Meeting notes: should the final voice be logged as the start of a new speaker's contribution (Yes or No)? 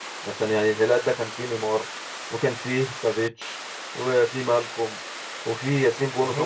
No